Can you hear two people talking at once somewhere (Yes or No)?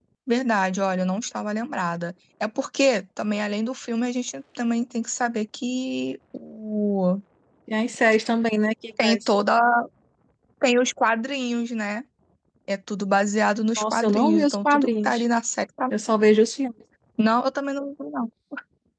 Yes